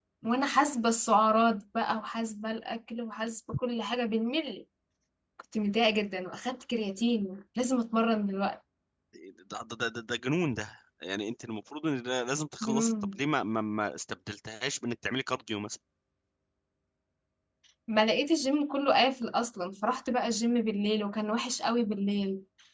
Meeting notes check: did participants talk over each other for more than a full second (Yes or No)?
No